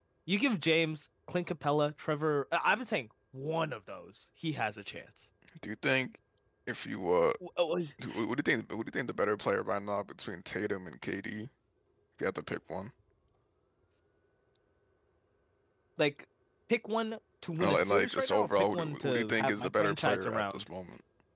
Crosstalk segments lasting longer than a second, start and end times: 17.6-20.7

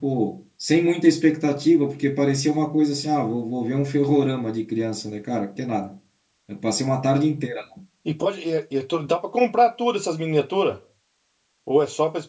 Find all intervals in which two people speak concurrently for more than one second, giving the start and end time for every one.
none

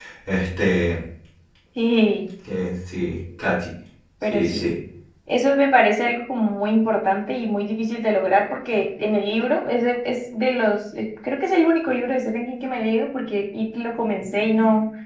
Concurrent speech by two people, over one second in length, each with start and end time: none

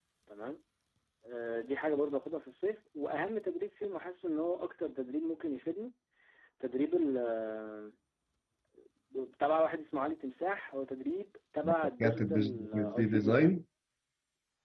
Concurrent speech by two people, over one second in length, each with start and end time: 12.0-13.6

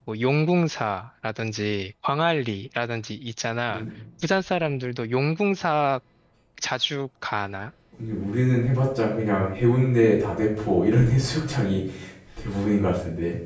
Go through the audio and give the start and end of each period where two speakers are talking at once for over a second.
none

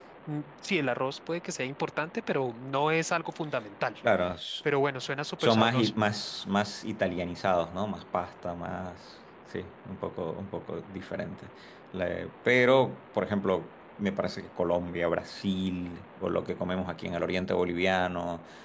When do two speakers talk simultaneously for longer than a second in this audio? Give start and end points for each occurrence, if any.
none

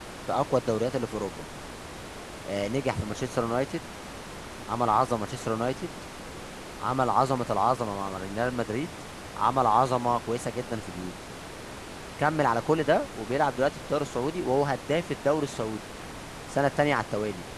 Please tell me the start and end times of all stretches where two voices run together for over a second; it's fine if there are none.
none

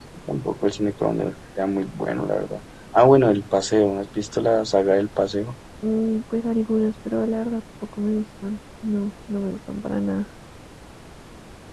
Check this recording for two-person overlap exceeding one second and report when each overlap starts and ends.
none

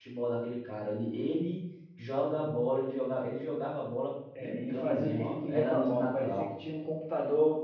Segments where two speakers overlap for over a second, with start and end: 4.4-6.5

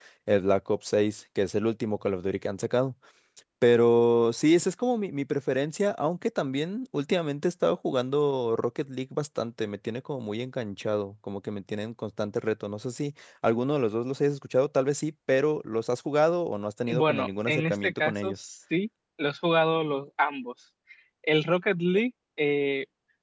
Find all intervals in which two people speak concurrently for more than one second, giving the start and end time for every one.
16.9-18.4

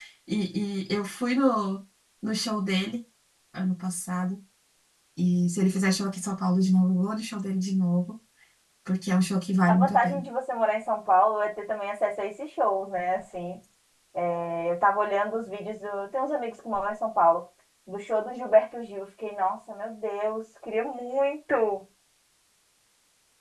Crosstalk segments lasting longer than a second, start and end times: none

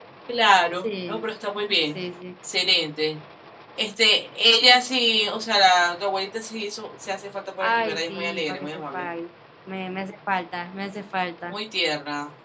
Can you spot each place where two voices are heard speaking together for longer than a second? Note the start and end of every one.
7.6-9.0

